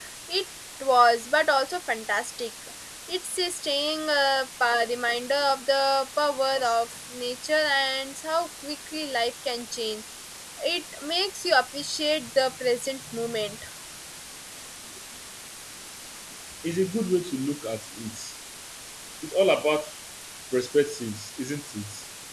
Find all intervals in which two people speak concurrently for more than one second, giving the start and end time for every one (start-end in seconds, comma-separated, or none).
none